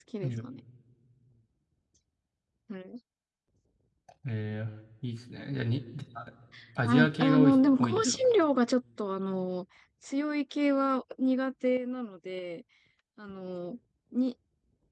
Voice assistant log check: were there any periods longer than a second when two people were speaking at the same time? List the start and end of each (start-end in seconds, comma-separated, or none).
6.8-8.2